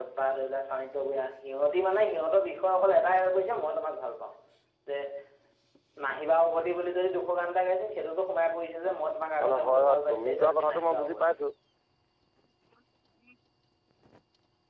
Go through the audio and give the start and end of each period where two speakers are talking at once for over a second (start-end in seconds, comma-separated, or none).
9.4-11.3